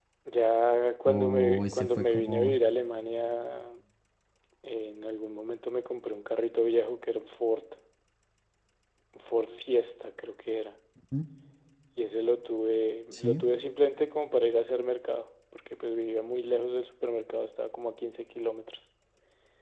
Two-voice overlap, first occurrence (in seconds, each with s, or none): 1.1 s